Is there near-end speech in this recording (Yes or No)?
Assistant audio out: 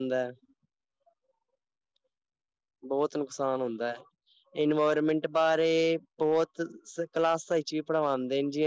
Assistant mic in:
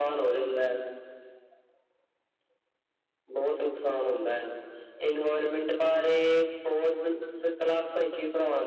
No